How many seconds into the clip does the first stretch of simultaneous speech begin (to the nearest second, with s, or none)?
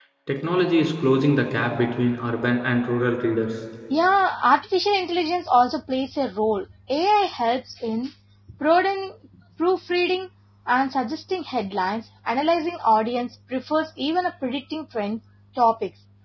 none